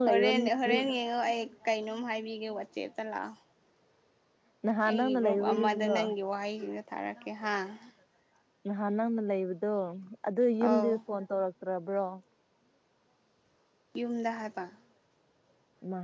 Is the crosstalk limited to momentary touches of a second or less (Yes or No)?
No